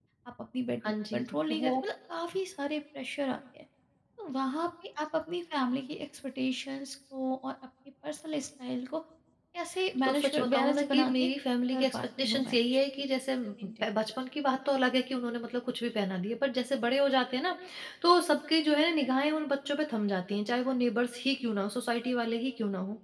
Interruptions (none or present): present